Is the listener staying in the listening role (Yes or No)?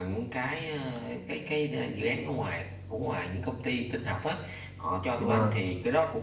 Yes